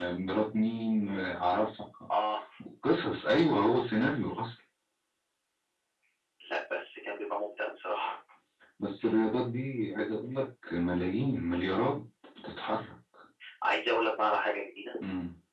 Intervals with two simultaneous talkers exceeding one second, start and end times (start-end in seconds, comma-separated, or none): none